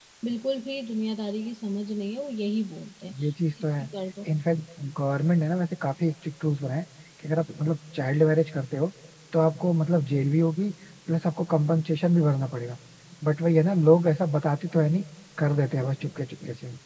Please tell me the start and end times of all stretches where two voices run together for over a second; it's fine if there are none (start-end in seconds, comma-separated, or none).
none